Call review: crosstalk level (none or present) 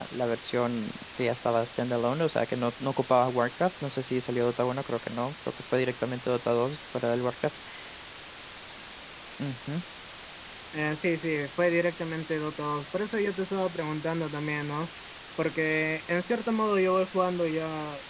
none